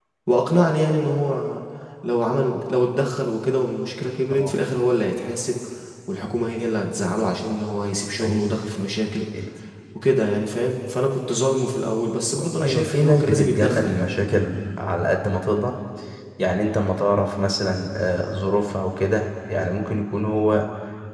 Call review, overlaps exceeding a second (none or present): present